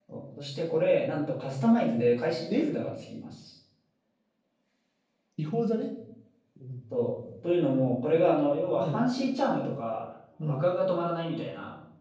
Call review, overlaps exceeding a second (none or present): none